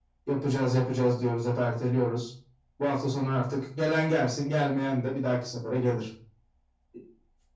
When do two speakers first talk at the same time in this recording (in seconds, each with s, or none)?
none